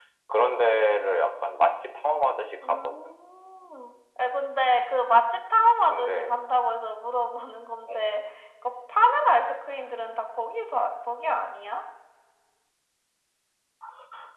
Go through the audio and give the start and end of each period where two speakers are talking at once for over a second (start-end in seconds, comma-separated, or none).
none